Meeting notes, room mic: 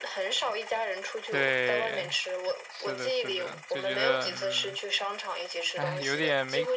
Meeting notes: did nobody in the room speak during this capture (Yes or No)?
No